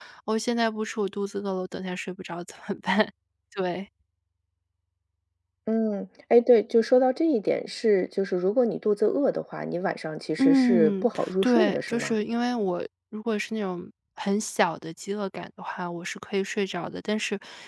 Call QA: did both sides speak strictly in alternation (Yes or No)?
No